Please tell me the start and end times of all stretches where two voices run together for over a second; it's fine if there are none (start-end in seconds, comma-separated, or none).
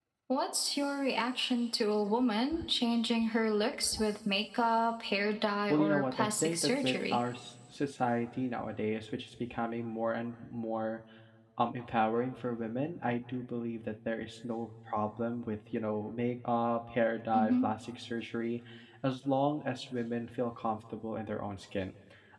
5.7-7.2